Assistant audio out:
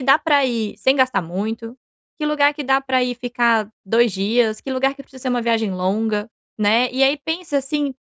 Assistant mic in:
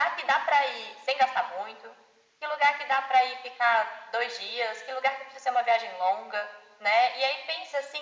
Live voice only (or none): none